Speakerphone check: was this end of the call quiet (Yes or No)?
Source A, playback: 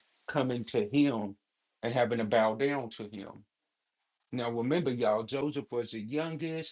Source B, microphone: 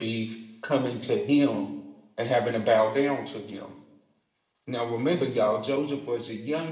Yes